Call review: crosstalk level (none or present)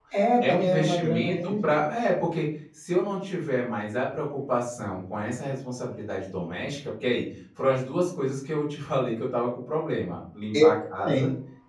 present